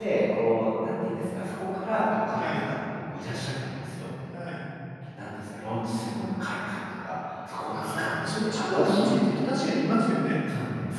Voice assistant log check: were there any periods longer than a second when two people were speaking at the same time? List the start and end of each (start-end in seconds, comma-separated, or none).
7.7-9.1